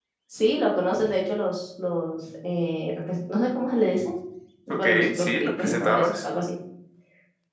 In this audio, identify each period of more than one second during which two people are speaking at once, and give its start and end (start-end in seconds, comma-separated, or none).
4.7-6.2